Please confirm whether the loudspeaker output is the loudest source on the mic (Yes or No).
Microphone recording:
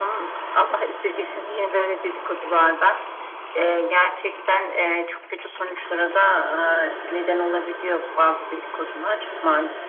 Yes